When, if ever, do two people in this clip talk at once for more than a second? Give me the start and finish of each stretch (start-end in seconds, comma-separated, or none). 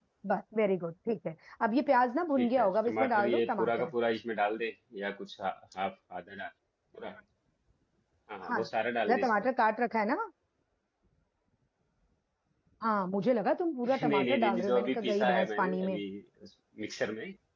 2.4-3.9, 13.8-16.0